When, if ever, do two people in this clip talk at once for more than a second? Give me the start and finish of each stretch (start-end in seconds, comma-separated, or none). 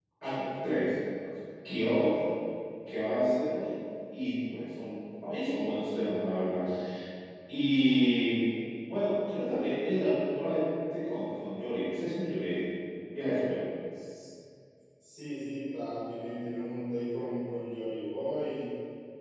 none